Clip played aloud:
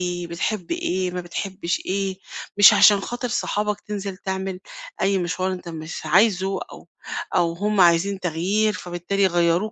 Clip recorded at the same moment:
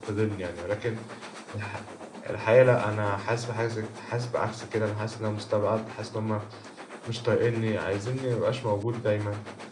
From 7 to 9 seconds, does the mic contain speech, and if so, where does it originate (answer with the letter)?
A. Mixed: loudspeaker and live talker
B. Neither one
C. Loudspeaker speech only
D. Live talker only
D